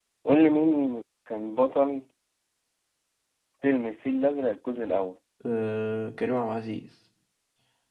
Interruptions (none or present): none